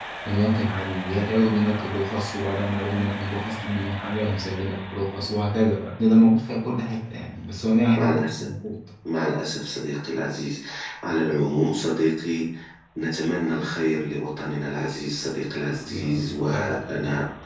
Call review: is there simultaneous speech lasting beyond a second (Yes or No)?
Yes